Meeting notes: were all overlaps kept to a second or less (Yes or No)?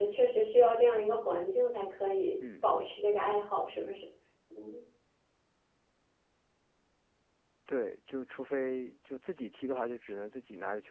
Yes